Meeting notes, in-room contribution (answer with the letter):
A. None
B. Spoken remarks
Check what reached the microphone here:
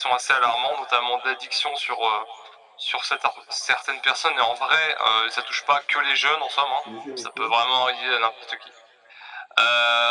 B